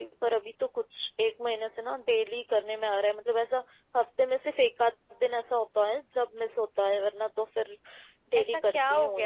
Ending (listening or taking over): taking over